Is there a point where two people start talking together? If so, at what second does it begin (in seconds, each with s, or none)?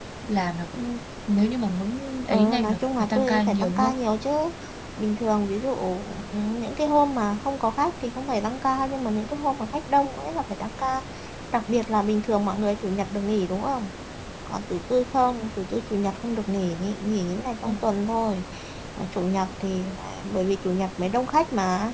2.3 s